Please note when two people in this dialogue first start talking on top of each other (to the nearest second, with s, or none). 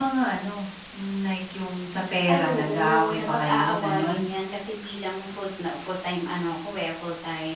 2 s